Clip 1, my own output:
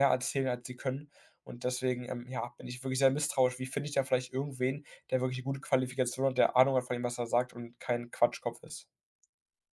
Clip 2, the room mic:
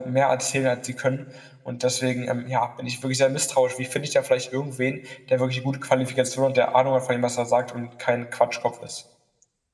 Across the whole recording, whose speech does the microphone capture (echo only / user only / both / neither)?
echo only